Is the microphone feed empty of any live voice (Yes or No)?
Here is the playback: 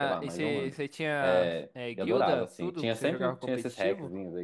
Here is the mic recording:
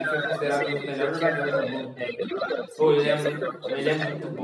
No